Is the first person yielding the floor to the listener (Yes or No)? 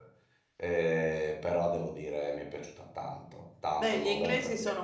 Yes